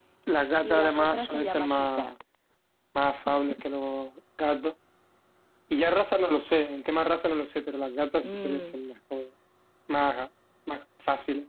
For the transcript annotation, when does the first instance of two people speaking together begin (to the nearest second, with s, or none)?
1 s